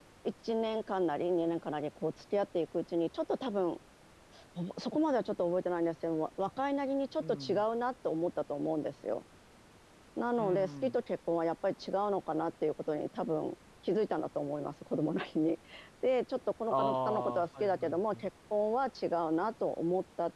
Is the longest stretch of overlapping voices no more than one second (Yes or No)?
No